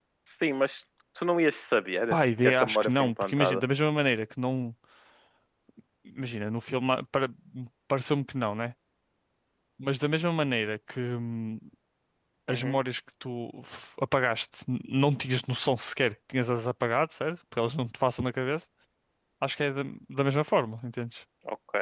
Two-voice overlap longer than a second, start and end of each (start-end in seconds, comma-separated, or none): 2.1-3.6